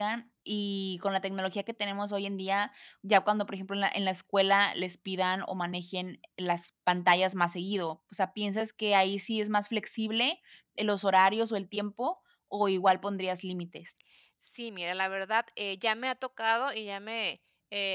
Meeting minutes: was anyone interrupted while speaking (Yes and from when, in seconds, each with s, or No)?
No